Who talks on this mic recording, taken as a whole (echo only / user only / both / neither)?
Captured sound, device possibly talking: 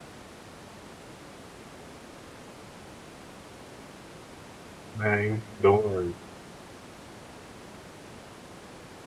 user only